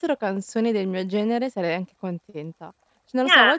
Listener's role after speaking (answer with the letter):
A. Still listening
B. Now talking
A